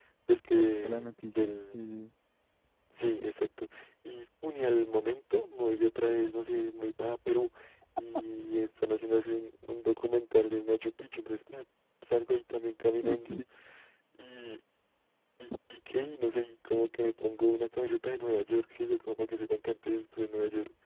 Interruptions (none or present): present